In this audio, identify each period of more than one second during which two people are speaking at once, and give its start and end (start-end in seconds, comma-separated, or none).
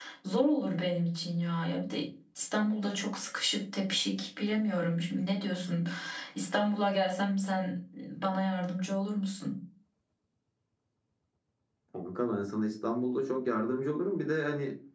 none